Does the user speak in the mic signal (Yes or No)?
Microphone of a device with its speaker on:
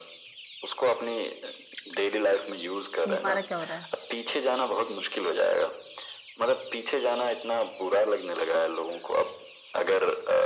Yes